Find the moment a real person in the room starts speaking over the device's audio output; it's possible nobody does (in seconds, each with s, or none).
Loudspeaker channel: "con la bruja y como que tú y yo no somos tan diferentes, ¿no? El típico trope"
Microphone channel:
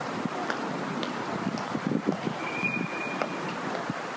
none